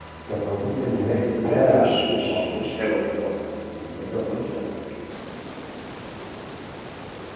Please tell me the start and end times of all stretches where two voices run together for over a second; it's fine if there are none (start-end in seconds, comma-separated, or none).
1.3-2.6